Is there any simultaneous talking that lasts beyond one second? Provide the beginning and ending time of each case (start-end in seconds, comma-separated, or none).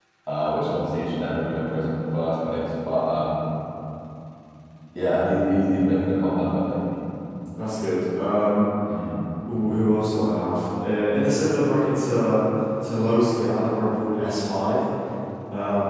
none